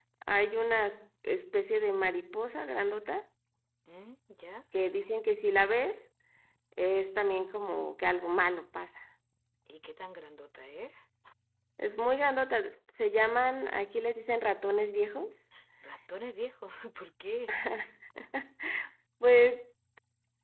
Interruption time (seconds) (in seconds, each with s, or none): none